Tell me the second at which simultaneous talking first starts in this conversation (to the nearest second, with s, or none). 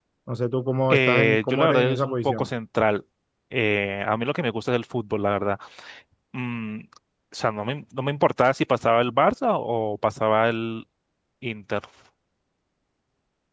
1 s